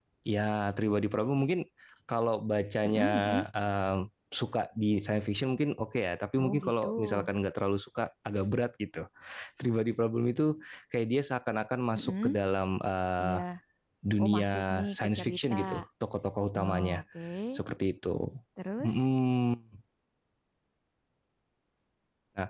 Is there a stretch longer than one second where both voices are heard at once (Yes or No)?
Yes